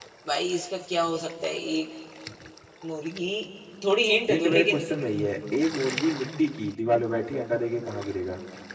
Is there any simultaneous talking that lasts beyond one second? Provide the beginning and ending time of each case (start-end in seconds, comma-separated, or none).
none